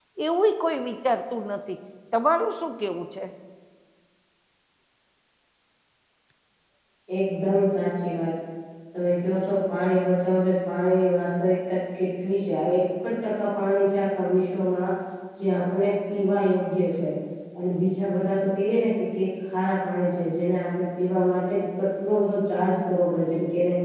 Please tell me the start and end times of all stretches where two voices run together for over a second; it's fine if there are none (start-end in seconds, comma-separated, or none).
none